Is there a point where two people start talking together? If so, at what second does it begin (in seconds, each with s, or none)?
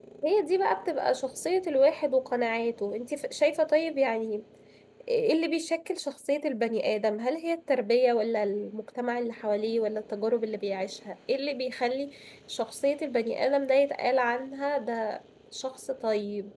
none